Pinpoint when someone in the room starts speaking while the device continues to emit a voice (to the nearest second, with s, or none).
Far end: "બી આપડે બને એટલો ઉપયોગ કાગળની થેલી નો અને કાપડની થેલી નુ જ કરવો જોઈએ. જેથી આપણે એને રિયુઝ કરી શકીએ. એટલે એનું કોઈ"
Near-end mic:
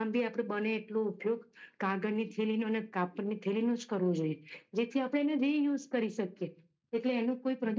none